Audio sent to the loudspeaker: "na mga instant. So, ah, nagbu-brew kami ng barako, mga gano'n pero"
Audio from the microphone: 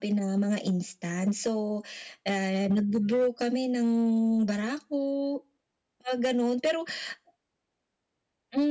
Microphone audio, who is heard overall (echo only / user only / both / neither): echo only